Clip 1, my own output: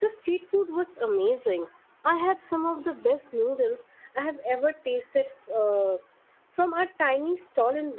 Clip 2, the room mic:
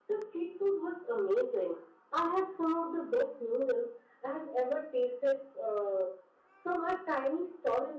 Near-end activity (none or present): none